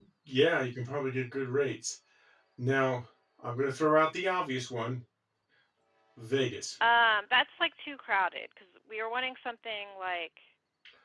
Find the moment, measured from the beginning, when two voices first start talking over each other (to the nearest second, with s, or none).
none